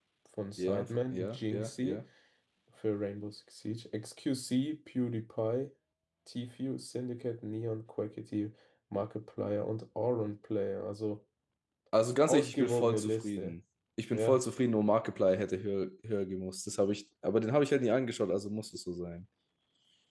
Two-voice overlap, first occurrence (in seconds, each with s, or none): 0.6 s